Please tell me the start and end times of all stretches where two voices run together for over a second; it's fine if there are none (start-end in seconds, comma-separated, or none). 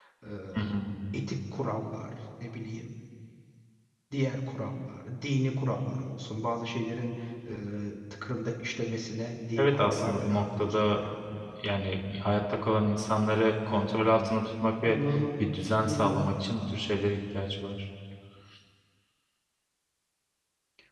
9.6-11.0